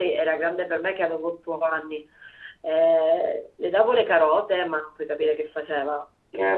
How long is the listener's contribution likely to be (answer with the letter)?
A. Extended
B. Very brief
A